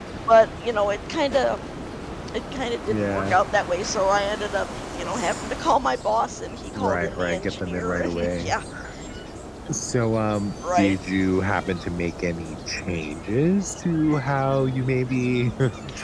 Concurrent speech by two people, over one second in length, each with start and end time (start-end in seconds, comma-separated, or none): 6.8-8.5